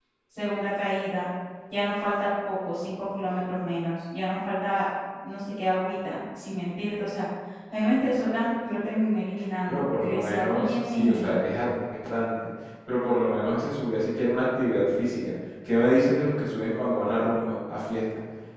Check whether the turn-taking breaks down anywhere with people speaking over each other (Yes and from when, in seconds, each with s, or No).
Yes, from 9.7 s